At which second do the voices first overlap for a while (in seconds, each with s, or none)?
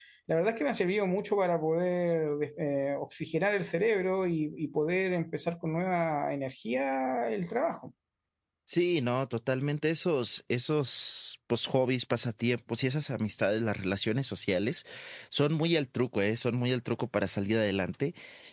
none